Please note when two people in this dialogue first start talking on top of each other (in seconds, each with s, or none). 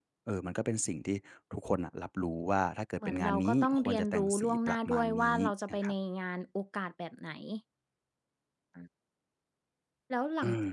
3.0 s